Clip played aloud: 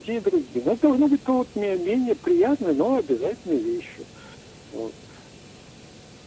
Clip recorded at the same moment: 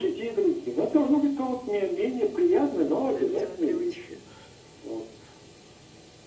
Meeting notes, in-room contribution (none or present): present